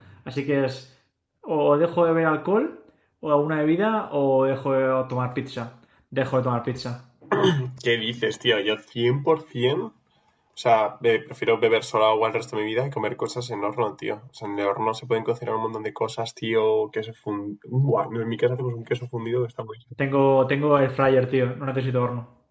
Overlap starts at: none

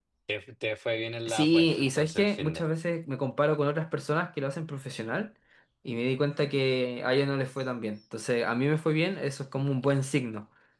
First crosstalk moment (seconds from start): 1.3 s

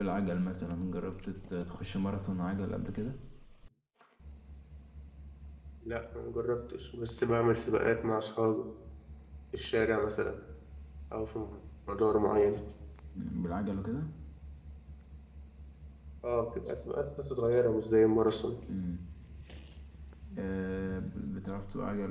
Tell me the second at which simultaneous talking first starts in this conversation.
none

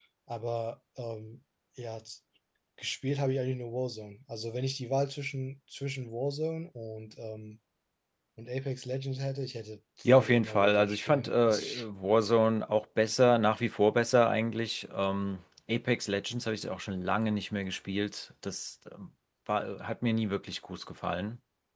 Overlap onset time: 10.1 s

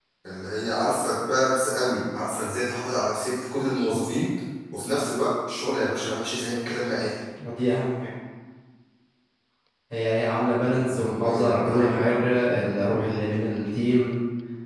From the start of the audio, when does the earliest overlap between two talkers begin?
10.7 s

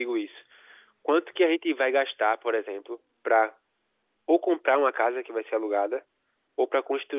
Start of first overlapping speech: none

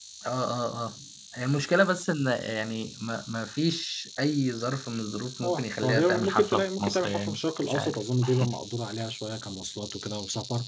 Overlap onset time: 5.4 s

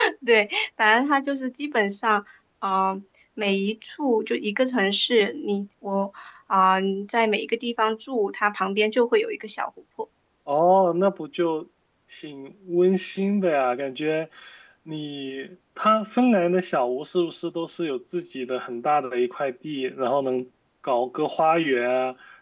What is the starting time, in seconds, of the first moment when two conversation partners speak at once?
none

